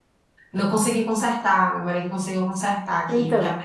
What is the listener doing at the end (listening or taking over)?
taking over